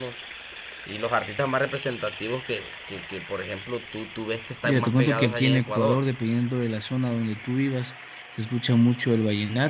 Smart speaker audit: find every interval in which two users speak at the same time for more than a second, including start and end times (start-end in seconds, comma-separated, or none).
4.6-6.0